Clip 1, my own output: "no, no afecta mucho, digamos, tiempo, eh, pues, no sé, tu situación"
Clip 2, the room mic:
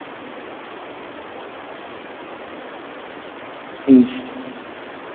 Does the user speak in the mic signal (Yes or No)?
Yes